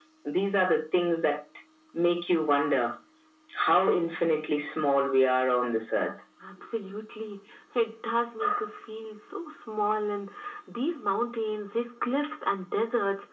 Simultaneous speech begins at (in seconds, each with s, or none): none